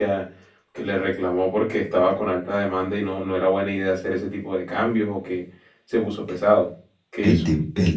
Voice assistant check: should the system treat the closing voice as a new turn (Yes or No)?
Yes